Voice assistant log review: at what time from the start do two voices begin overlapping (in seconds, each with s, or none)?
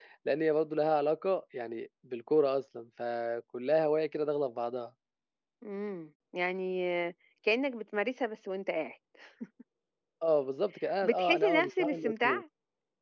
11.0 s